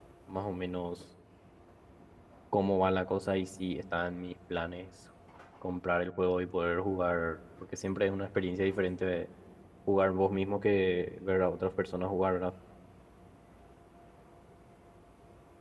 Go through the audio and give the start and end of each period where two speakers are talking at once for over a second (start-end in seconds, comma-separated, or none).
none